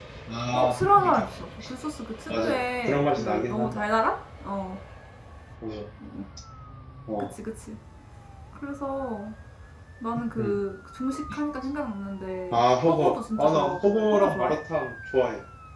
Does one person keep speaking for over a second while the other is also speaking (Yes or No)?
Yes